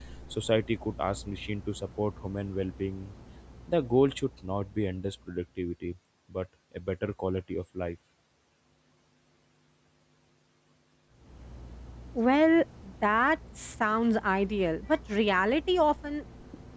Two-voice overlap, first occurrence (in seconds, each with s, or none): none